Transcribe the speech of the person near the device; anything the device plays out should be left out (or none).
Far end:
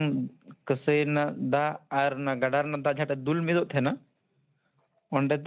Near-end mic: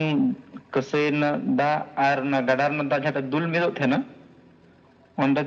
none